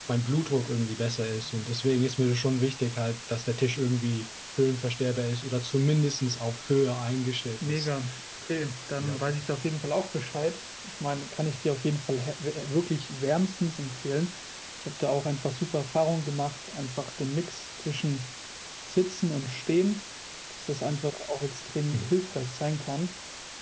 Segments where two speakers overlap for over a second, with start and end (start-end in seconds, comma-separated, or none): none